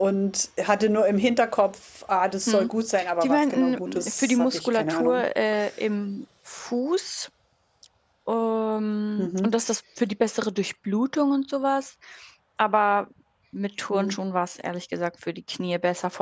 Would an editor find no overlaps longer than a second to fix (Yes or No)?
No